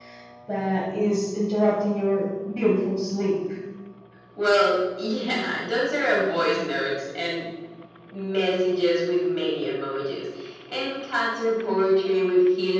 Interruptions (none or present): none